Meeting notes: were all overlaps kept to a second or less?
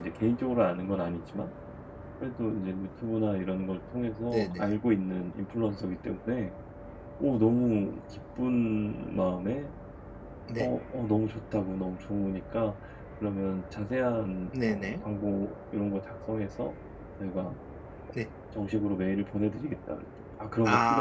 Yes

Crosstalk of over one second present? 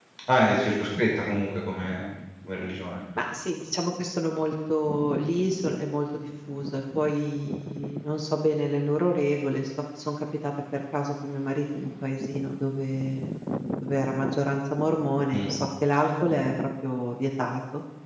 No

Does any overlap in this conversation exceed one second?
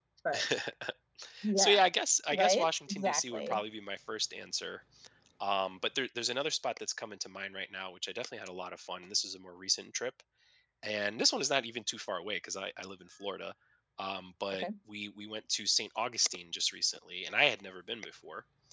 Yes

